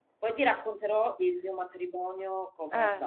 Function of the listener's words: taking over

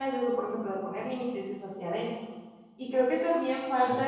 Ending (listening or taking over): listening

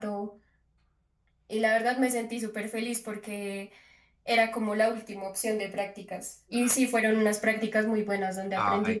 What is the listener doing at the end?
taking over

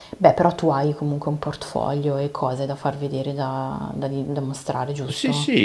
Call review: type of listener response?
taking over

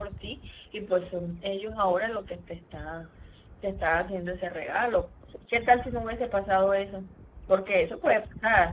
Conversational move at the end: listening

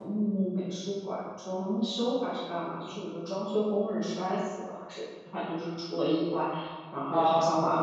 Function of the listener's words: listening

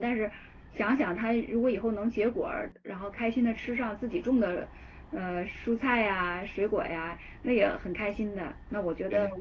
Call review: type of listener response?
listening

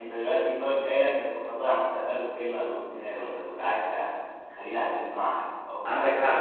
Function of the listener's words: taking over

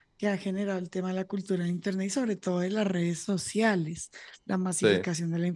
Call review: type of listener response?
listening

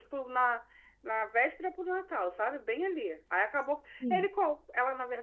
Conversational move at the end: listening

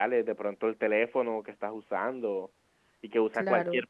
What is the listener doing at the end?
listening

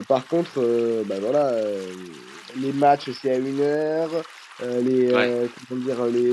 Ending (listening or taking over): listening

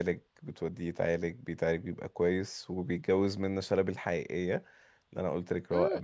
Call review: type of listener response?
taking over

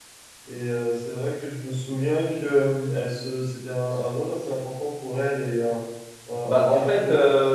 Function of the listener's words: taking over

